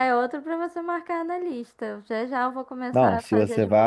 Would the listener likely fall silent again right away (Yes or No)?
No